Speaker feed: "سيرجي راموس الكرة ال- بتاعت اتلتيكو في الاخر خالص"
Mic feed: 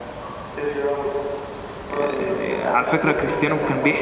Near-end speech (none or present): present